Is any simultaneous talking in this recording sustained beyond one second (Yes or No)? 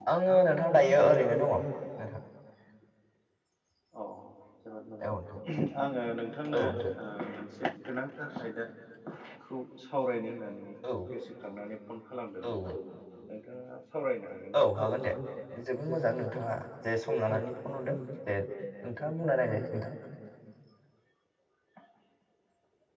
No